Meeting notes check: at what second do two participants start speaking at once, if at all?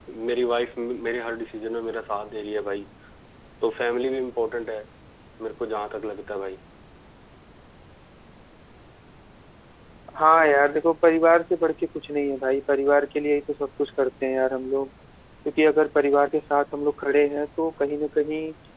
none

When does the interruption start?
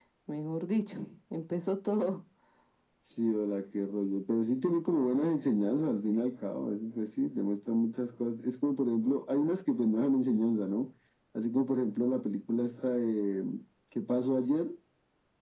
none

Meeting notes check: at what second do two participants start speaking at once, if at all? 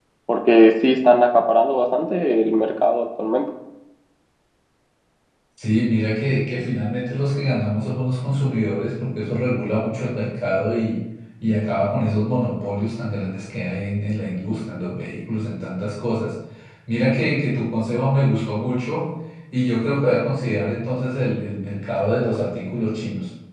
none

